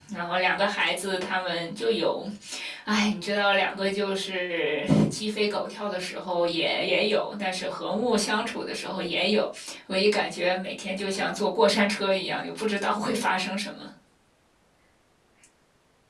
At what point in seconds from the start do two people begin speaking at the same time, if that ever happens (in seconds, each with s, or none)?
none